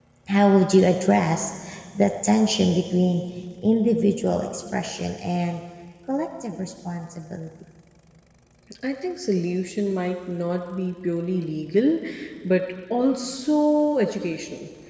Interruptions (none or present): none